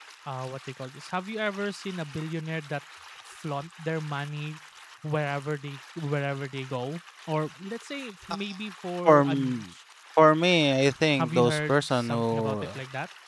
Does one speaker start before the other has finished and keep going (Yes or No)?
Yes